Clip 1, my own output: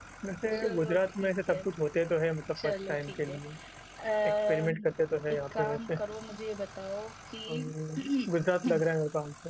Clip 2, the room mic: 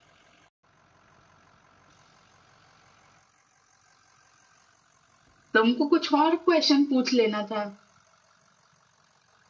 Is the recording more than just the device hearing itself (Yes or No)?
Yes